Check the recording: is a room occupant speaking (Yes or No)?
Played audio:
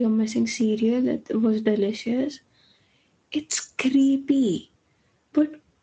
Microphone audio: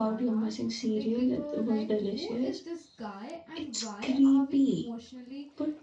Yes